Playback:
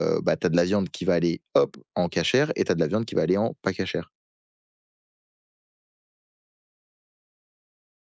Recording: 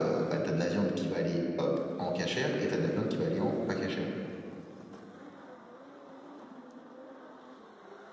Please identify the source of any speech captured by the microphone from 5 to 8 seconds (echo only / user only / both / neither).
neither